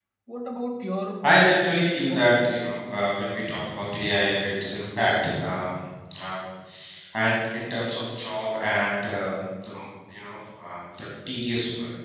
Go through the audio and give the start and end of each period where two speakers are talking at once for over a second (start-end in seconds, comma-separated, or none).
1.2-2.6